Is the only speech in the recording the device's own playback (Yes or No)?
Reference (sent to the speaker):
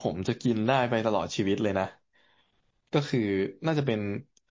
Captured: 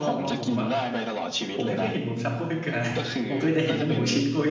No